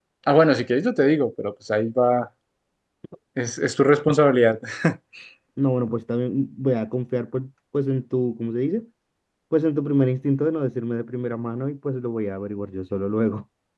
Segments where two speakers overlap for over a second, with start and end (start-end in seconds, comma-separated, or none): none